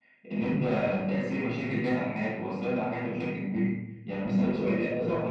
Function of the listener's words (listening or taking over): taking over